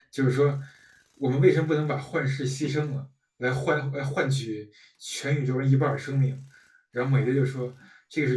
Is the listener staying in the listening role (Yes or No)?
Yes